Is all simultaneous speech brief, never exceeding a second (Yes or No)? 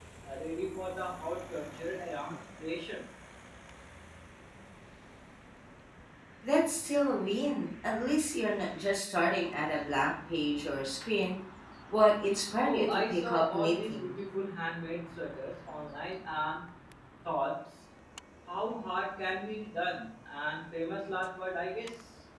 No